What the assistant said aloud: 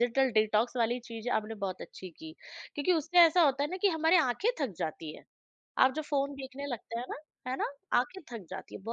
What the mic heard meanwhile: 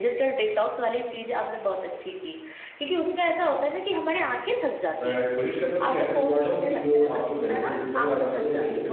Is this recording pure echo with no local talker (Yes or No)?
No